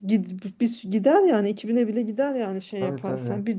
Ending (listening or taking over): listening